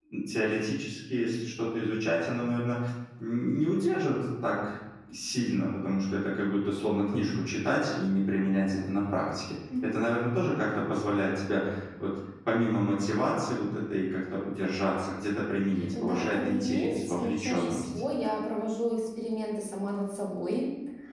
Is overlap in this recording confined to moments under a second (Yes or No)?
No